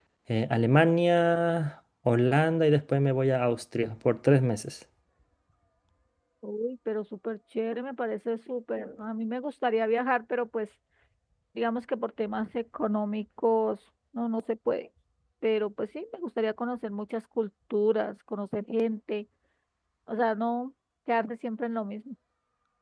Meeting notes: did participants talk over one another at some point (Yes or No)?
No